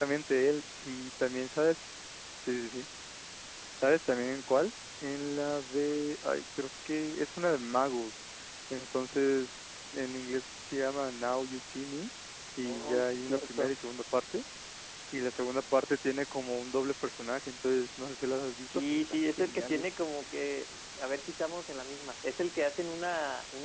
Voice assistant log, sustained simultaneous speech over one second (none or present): present